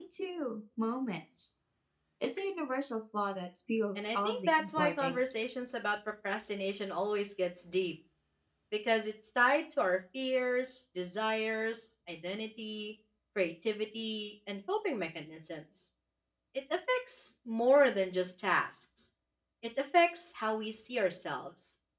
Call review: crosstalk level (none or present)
present